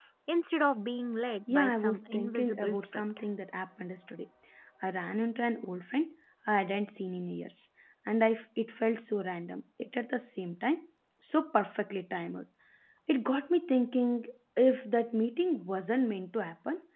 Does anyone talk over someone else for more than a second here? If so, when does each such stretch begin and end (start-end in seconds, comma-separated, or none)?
1.5-3.0